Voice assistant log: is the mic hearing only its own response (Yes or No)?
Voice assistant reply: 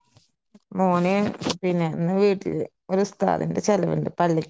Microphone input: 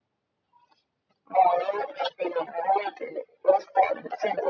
Yes